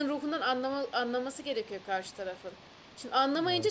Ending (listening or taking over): listening